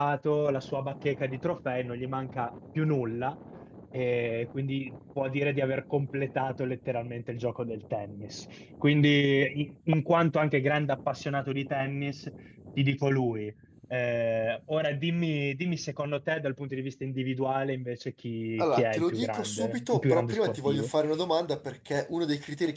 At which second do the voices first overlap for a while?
18.6 s

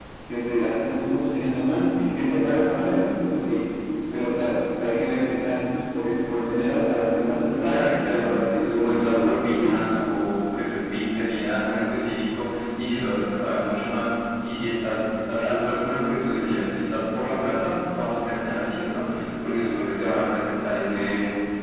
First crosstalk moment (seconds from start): 7.6 s

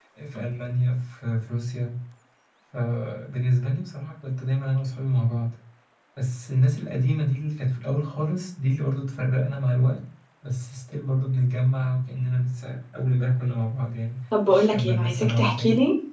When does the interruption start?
14.3 s

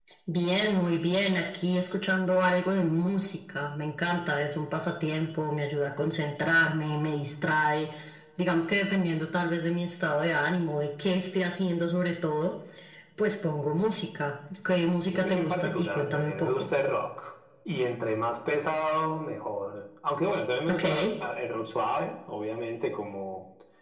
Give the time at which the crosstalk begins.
14.8 s

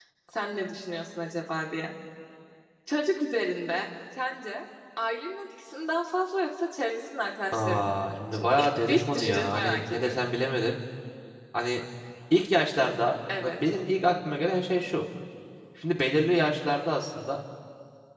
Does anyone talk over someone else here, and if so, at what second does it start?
7.5 s

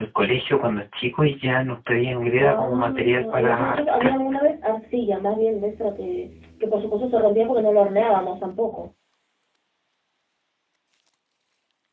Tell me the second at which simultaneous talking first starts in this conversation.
2.3 s

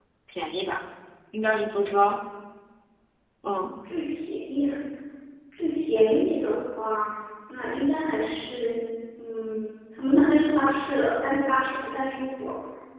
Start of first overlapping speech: none

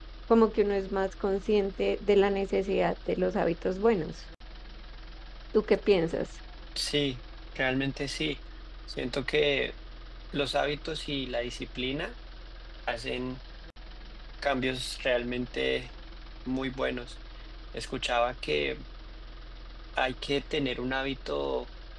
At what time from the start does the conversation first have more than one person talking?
none

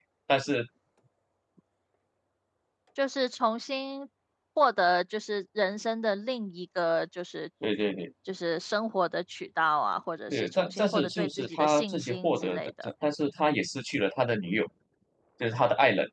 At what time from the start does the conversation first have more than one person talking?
10.3 s

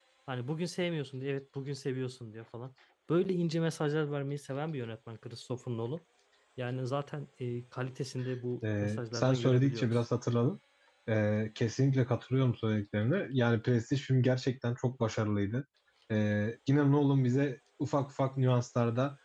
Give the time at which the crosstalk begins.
8.6 s

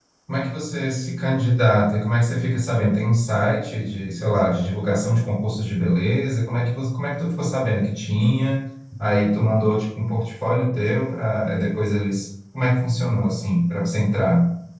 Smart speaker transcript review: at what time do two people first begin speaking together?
none

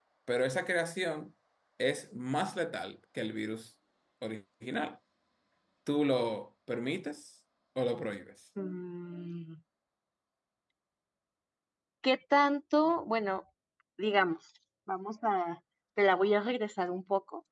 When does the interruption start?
none

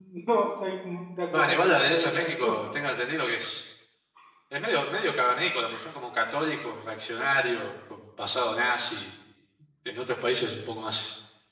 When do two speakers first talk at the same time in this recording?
1.3 s

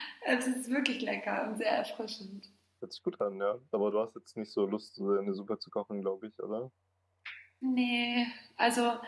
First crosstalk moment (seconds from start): none

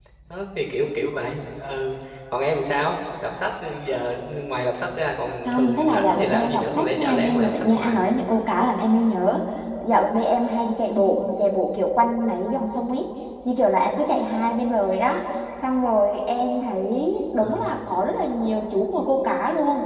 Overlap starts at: 5.4 s

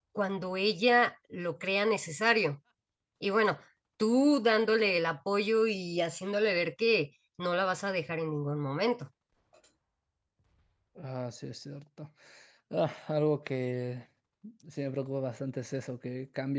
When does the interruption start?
none

